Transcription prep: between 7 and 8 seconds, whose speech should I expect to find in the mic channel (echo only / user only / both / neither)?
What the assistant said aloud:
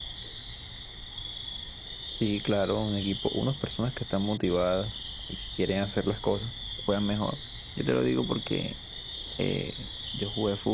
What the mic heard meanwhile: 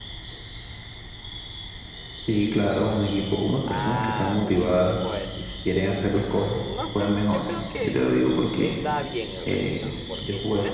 both